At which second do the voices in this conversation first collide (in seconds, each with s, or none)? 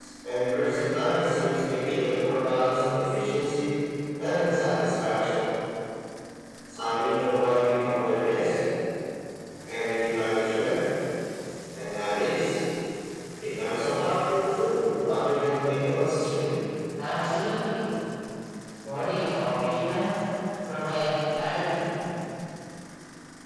none